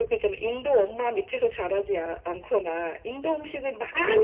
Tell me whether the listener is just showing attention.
Yes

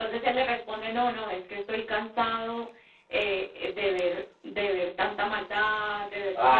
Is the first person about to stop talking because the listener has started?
Yes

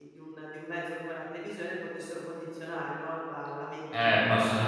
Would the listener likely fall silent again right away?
No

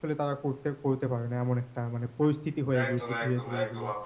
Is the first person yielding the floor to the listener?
Yes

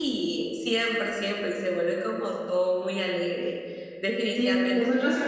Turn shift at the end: Yes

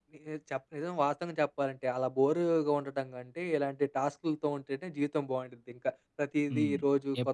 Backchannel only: No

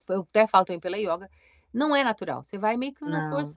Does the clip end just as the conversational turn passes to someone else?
No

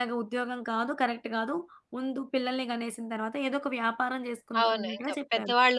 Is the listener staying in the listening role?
No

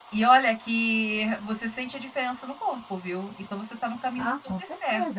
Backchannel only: No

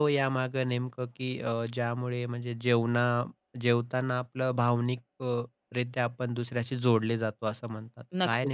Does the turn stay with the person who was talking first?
No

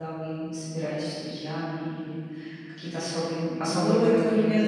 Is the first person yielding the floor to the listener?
Yes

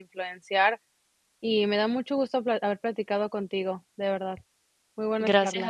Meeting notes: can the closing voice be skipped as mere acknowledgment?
No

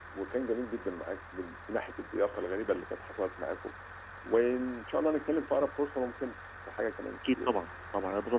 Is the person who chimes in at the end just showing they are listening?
No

